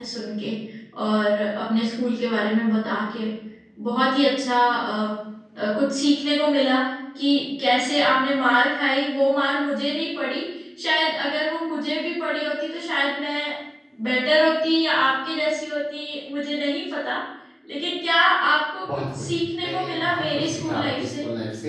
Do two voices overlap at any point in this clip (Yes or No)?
Yes